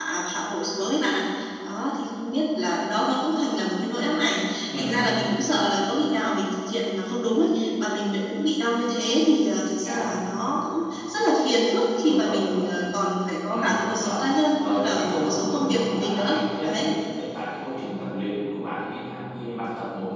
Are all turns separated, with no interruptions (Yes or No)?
No